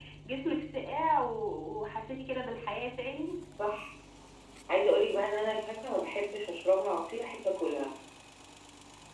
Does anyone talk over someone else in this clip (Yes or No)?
No